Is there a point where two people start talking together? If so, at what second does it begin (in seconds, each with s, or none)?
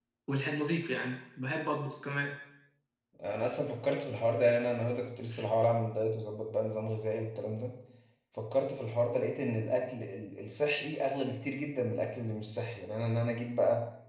none